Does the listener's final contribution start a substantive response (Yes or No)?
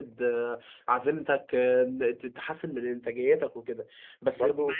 No